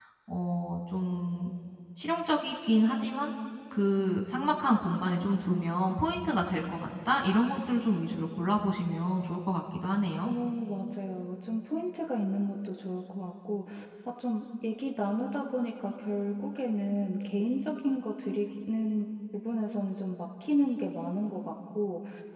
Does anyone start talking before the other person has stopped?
No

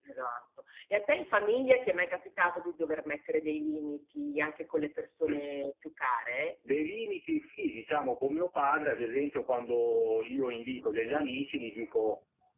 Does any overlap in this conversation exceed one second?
No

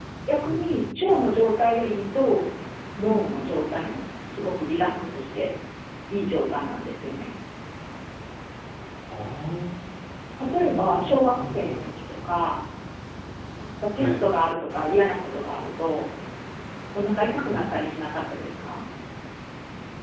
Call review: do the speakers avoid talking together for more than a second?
No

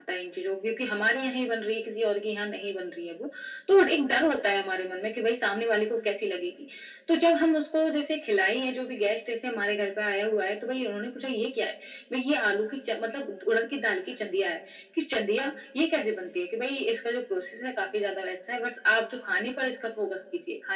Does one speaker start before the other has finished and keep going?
No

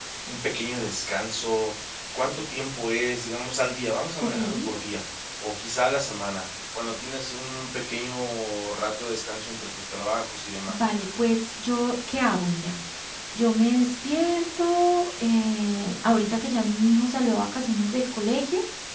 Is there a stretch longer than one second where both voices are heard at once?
No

